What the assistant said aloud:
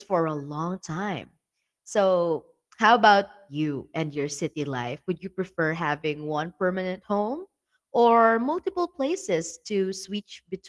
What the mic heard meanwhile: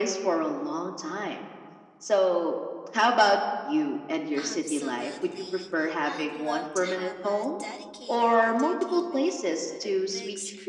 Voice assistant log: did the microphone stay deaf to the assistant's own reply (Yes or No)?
No